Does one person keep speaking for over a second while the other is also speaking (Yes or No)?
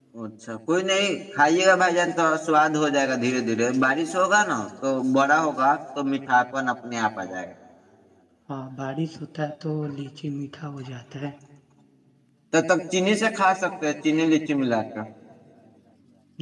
No